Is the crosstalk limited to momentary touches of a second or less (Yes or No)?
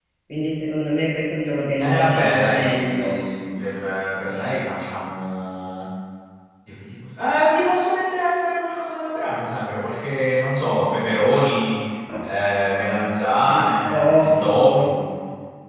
No